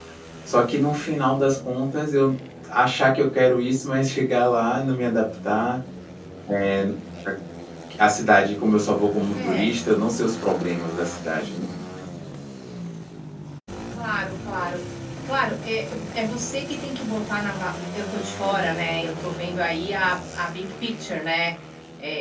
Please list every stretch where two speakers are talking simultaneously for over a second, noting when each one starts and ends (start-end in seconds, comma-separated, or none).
none